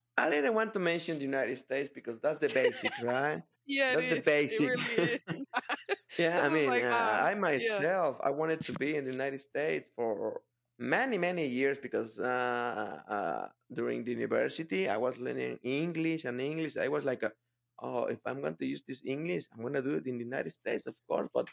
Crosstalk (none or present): present